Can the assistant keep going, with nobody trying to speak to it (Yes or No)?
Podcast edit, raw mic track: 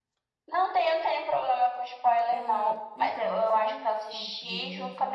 No